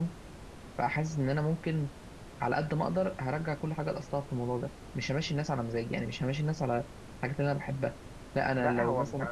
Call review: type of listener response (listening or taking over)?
taking over